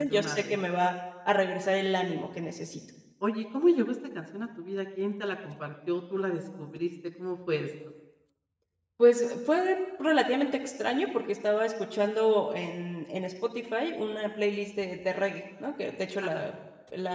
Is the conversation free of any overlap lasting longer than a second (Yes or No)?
Yes